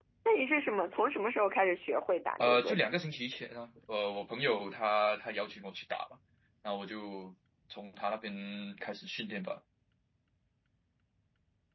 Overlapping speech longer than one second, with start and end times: none

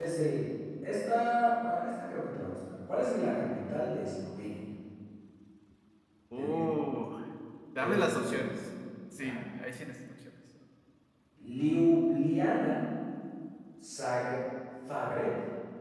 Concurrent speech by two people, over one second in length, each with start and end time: none

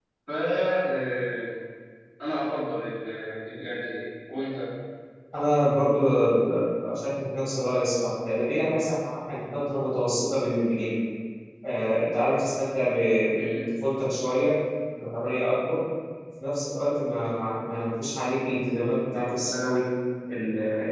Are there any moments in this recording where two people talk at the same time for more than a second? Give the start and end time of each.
none

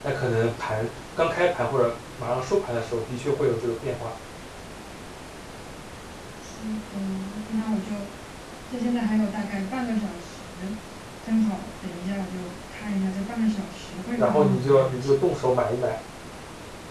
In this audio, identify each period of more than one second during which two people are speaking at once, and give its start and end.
14.2-15.5

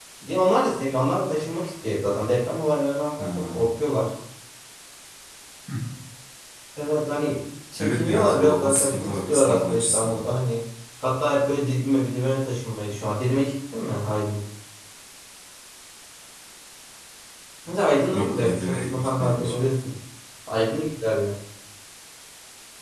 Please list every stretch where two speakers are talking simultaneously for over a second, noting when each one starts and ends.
7.8-10.2, 18.1-19.5

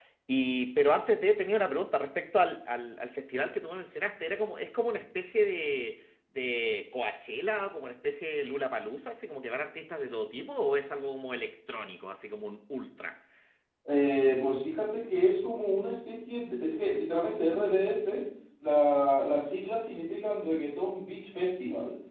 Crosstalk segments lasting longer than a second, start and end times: none

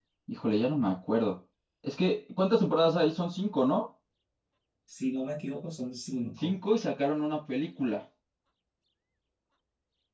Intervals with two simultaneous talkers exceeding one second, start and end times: none

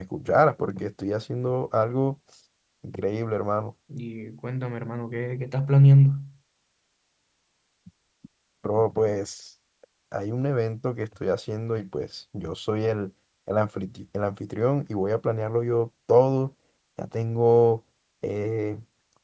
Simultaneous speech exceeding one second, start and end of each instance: none

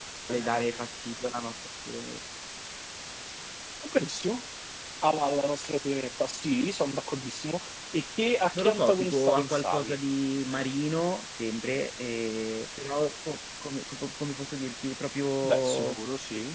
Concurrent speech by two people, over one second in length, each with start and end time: 8.6-10.0

